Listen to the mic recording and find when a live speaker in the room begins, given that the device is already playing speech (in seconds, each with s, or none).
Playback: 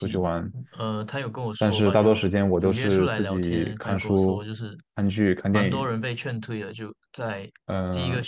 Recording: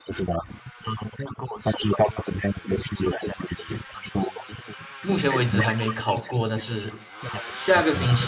5.0 s